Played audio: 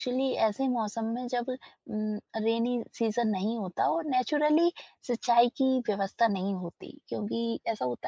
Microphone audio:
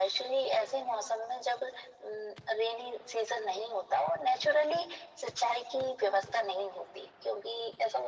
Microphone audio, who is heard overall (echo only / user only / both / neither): echo only